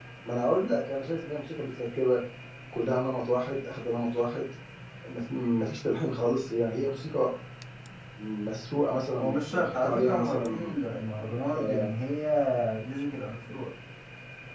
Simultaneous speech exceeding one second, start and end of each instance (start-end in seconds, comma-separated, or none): 9.2-10.8